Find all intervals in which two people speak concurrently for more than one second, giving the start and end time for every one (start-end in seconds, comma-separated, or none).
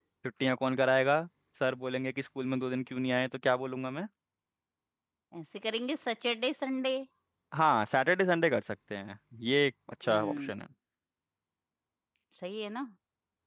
none